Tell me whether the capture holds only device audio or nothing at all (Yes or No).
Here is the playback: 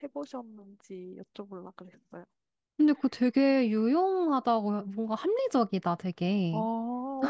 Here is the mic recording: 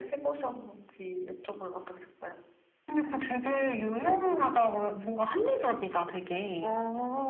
Yes